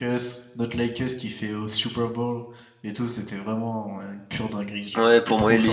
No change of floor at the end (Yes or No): No